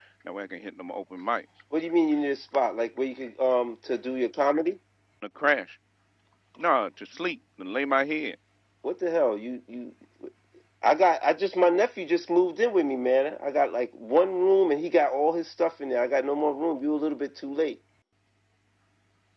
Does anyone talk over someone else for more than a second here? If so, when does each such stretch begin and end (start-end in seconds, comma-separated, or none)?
none